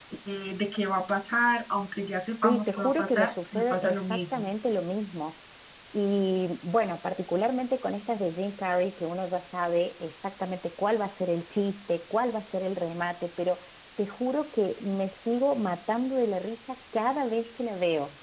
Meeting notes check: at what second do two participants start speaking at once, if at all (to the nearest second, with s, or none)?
2 s